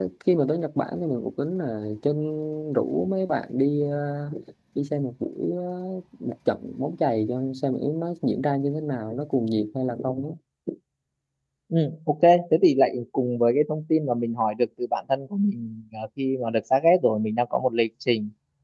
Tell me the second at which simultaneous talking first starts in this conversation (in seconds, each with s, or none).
none